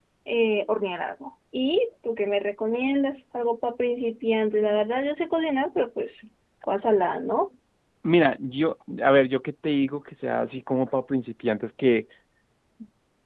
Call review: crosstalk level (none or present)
none